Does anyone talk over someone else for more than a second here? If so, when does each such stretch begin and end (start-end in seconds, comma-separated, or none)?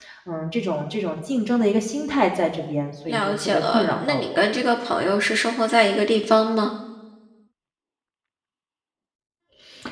3.1-4.4